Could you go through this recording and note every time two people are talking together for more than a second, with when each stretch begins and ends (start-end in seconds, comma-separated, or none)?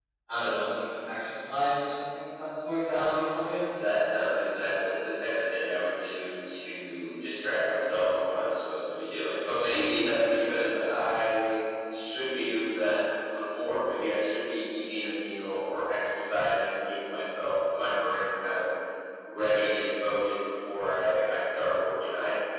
none